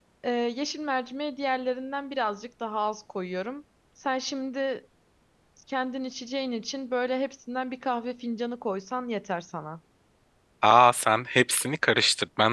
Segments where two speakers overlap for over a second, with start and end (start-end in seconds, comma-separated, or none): none